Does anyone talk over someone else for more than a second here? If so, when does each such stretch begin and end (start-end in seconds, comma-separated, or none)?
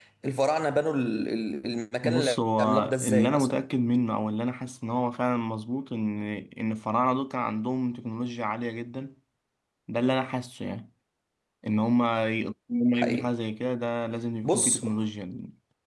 2.0-3.6